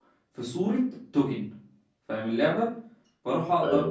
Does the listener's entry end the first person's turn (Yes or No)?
No